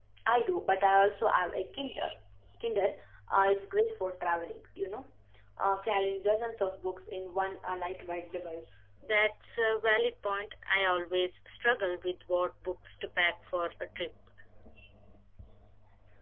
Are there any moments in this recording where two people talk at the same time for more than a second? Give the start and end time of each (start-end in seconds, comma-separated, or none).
none